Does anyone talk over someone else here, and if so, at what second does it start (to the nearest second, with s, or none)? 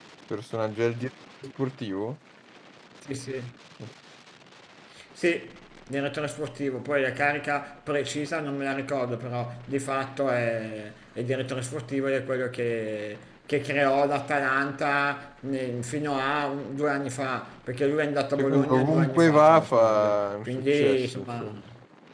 18 s